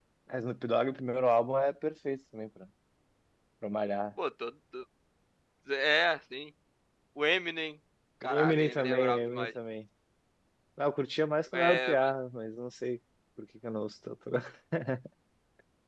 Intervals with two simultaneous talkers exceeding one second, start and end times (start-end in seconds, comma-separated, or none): 8.2-9.5